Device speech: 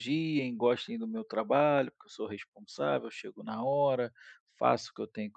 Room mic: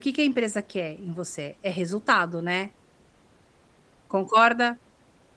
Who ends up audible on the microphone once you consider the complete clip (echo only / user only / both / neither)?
user only